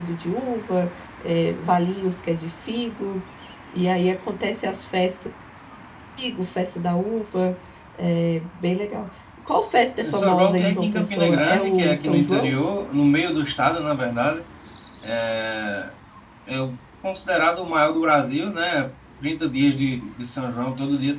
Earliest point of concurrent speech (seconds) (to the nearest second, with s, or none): 10 s